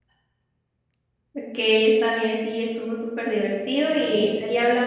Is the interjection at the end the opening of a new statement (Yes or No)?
No